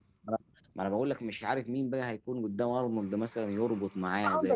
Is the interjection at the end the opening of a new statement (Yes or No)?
Yes